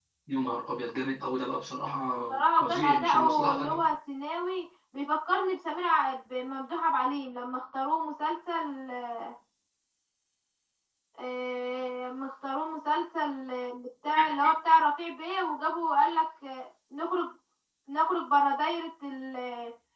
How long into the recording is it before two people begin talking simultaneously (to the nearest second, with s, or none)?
2 s